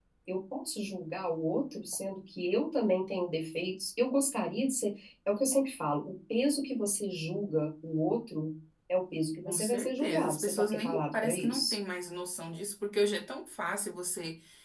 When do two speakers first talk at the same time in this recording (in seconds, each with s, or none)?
9.4 s